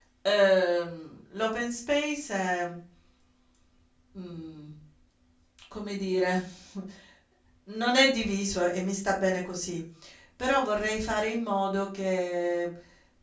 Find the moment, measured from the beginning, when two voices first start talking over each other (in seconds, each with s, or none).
none